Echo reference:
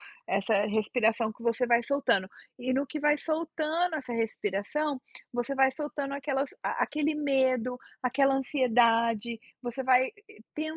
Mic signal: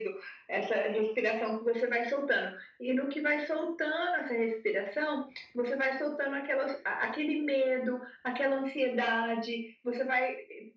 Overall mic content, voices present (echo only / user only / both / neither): echo only